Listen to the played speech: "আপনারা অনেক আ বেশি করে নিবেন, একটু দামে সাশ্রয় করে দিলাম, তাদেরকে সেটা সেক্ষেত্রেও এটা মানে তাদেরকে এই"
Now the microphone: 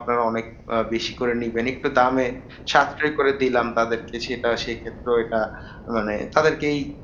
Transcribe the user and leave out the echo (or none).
none